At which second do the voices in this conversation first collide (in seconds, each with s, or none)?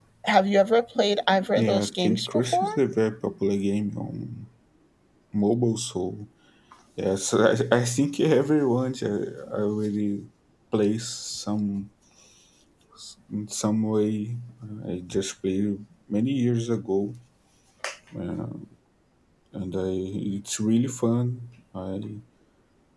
1.6 s